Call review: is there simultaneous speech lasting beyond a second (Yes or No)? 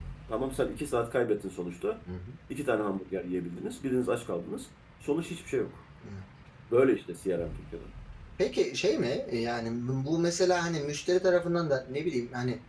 No